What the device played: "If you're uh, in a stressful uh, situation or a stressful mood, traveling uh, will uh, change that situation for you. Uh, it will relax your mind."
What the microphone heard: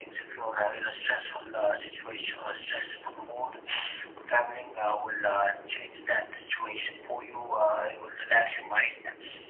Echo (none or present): present